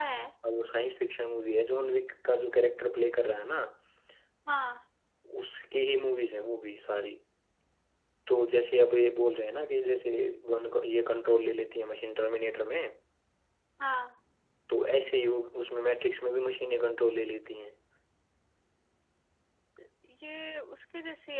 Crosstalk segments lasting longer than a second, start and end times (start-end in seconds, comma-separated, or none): none